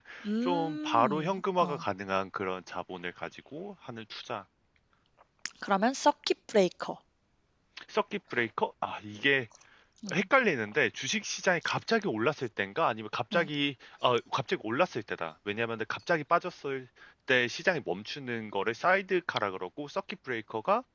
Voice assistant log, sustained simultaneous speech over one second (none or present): present